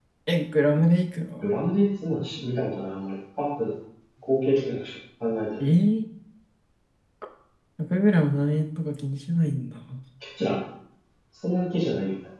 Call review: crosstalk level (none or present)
none